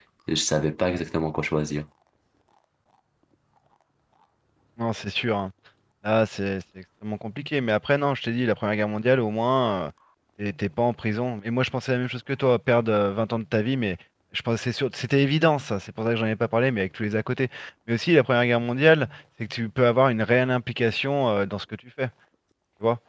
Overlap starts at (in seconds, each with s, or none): none